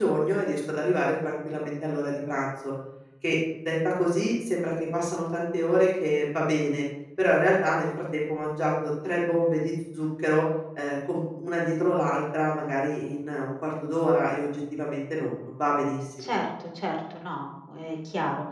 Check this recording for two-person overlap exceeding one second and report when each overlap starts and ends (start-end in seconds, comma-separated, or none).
none